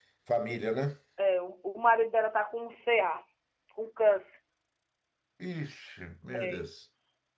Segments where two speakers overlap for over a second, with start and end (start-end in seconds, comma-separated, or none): none